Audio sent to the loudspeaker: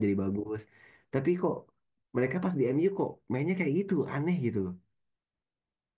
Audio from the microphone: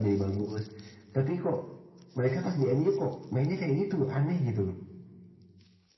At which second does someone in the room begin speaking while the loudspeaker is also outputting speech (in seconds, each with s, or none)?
none